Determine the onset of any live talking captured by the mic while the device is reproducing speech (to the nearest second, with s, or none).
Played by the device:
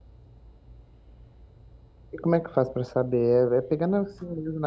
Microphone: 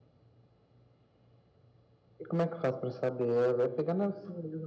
none